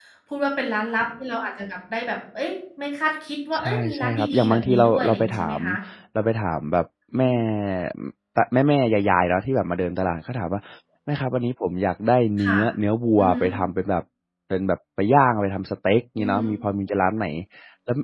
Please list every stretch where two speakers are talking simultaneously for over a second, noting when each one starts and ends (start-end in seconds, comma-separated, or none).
3.6-5.6